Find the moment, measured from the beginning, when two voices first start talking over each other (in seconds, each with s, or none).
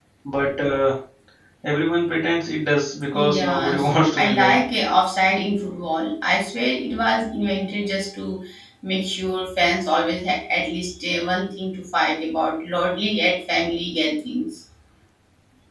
3.1 s